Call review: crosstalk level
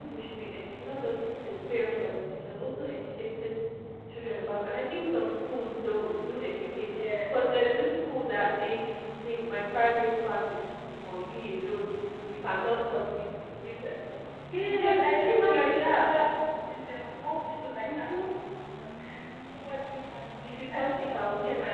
present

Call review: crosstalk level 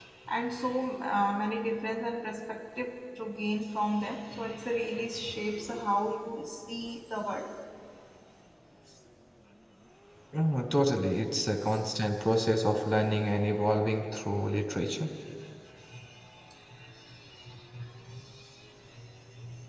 none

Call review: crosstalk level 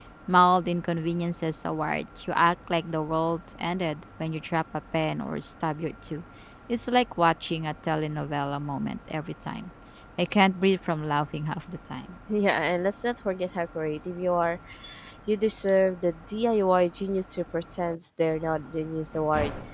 none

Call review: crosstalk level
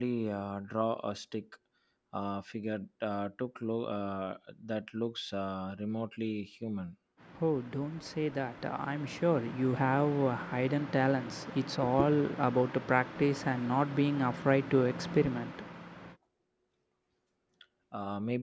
none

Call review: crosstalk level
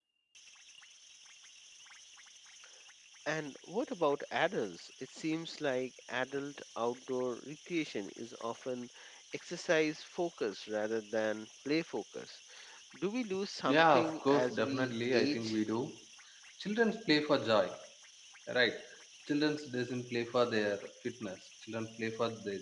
present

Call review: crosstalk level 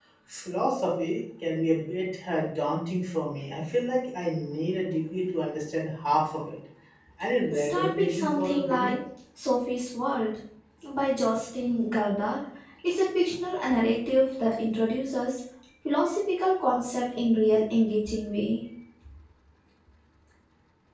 present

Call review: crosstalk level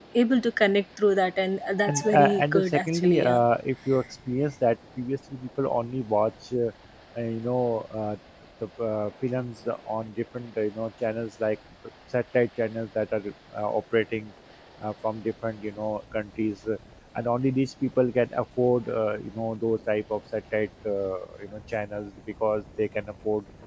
present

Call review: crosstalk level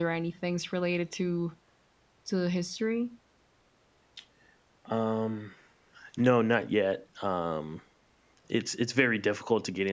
none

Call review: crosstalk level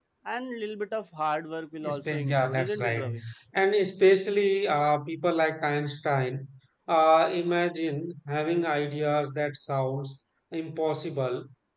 present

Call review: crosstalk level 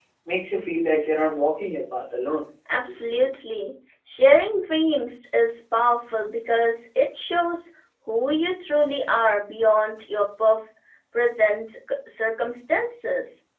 none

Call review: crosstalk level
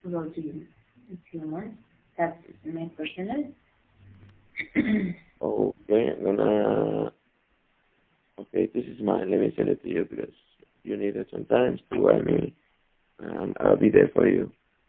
none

